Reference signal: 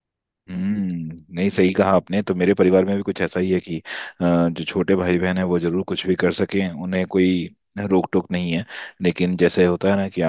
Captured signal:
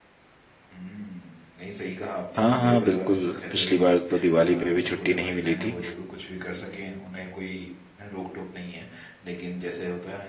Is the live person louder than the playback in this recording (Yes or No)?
Yes